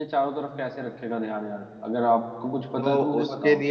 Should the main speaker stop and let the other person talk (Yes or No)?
Yes